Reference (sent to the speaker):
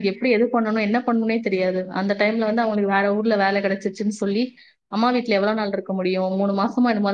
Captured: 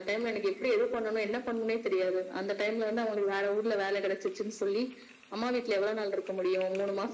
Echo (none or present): present